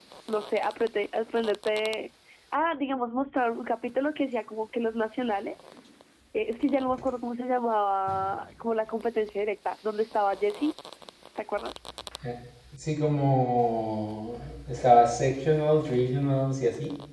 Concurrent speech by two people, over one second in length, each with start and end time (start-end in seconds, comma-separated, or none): none